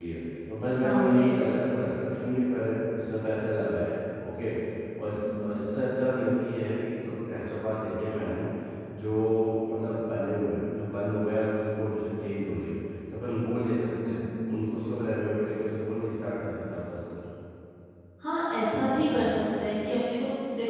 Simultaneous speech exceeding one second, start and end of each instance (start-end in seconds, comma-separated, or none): none